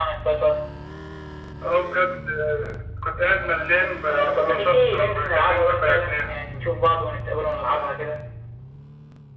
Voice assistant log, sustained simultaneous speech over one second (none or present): present